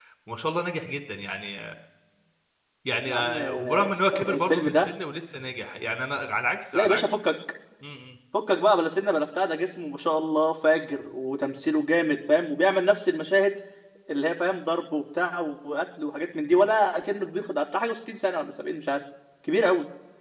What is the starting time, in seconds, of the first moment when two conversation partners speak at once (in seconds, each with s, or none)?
3.1 s